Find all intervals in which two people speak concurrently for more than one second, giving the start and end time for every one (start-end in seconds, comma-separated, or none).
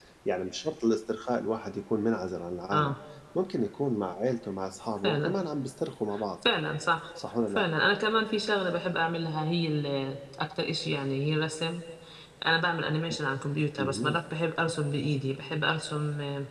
none